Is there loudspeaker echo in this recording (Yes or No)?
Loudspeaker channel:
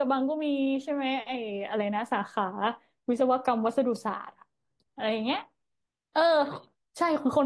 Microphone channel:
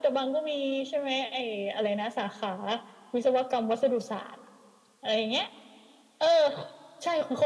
Yes